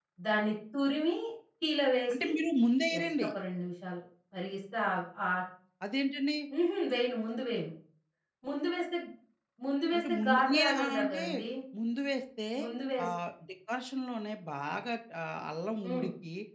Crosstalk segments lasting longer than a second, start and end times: 9.9-11.2

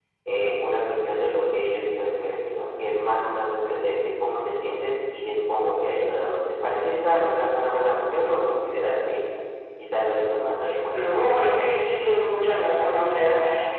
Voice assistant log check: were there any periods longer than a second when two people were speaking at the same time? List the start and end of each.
none

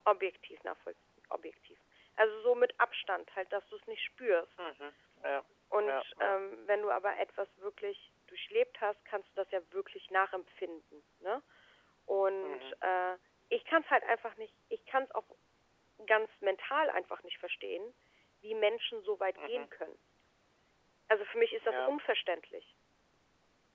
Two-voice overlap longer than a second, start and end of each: none

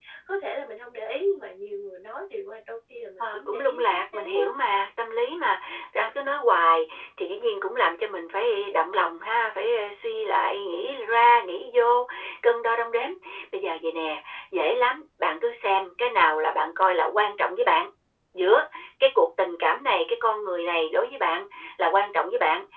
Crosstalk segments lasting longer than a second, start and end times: 3.2-4.5

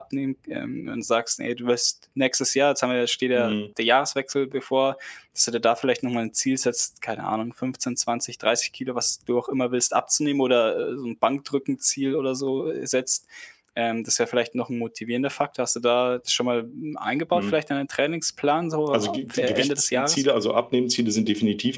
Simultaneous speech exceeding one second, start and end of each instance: 18.9-20.2

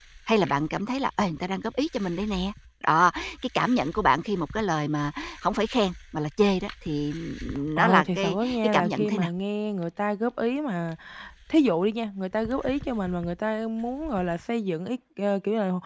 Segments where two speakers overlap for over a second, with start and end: 7.8-9.3

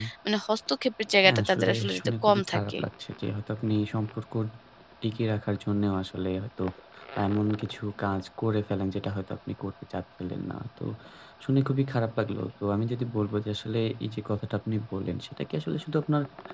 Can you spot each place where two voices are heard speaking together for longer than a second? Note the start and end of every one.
1.2-2.8

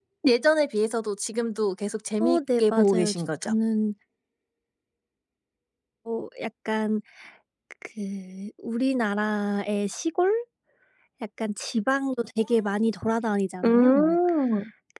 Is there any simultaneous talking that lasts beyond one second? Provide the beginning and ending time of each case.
2.2-3.5

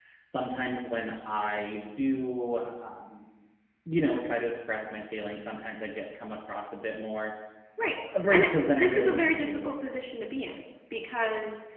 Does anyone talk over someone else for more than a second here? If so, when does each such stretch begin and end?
8.3-9.8

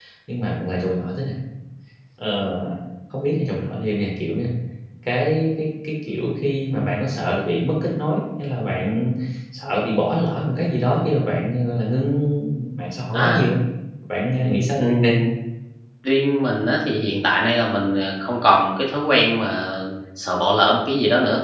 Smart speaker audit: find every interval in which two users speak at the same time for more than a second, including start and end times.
none

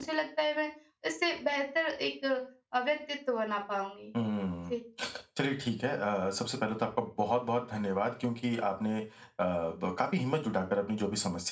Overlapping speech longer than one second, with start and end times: none

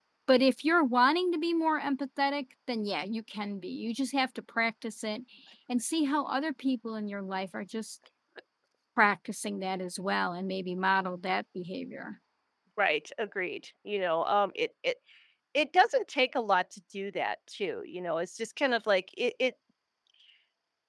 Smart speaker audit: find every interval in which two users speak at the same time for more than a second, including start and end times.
none

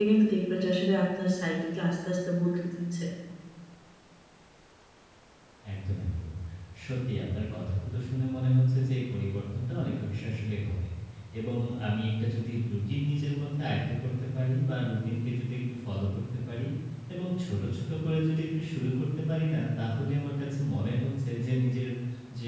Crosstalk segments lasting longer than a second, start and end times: none

